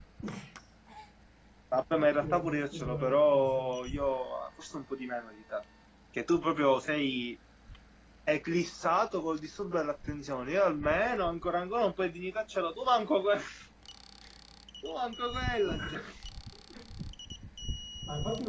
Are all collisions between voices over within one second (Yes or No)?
No